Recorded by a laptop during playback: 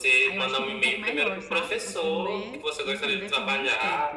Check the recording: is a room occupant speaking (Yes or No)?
Yes